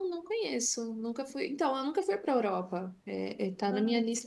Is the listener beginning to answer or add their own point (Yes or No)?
No